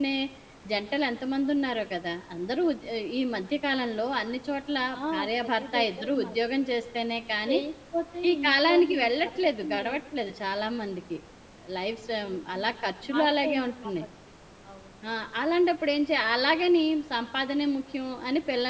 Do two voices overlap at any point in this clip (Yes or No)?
Yes